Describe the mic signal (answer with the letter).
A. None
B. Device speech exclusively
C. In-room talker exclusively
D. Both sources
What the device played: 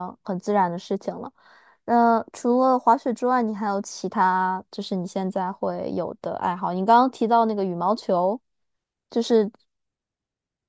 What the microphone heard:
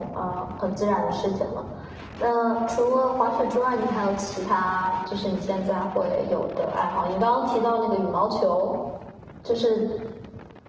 B